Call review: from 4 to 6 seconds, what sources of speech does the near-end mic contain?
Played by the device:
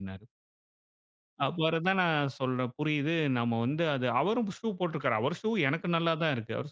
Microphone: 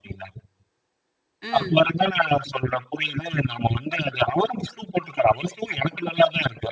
echo only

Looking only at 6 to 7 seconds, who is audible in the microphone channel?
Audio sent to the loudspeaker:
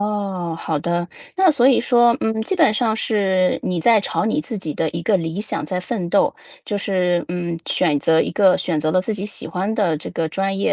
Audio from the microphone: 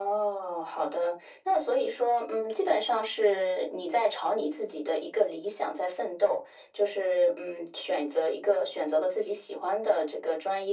echo only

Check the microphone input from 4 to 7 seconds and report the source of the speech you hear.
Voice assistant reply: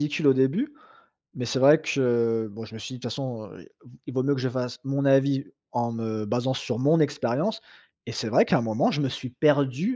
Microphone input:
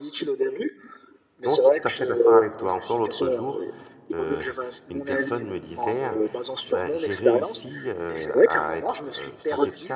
both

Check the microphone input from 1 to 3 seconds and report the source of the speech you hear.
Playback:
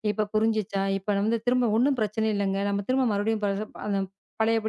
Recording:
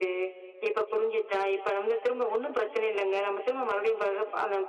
echo only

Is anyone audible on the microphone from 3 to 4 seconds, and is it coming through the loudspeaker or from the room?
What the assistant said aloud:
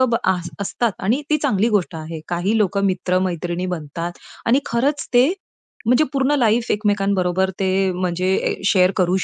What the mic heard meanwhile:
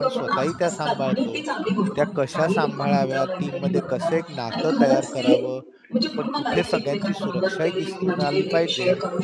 both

